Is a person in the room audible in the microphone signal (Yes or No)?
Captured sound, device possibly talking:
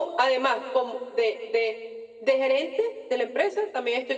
No